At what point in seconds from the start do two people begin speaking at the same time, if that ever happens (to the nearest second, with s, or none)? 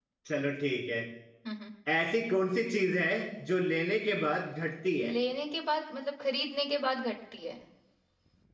none